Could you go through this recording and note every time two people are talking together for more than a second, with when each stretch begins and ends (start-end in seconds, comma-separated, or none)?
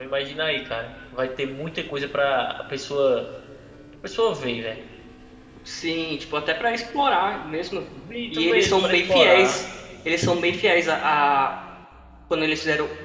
8.3-9.6